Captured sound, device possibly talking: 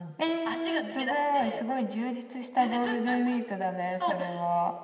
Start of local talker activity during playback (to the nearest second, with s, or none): none